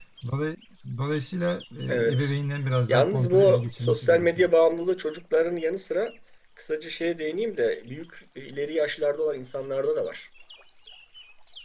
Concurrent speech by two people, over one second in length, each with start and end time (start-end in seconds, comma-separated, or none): 2.9-4.5